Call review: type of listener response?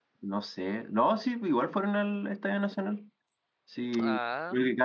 listening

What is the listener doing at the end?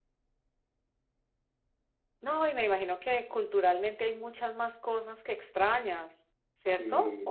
taking over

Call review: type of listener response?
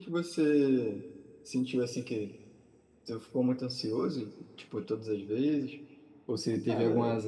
listening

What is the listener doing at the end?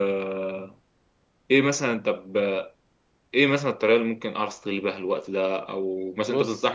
listening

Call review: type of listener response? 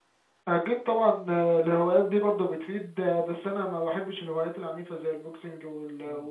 listening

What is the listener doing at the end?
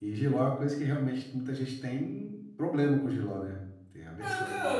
taking over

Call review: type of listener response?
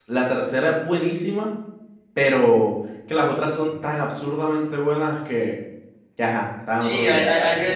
taking over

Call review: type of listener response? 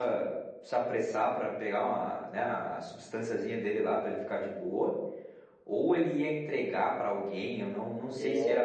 listening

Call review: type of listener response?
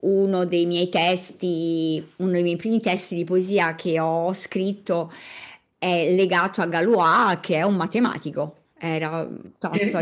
taking over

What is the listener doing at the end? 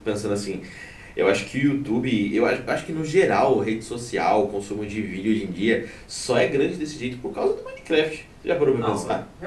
taking over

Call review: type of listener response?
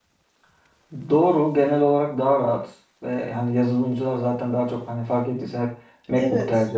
listening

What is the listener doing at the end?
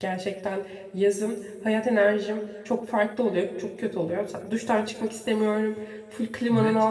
listening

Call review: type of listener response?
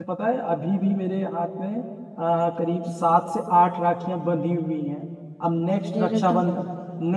listening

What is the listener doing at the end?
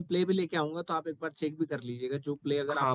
taking over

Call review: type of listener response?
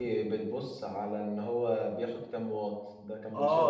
taking over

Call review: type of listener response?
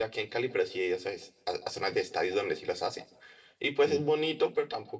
listening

